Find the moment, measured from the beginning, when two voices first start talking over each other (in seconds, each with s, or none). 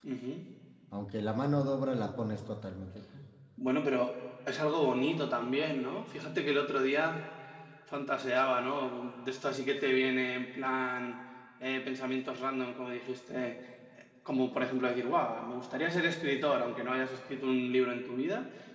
none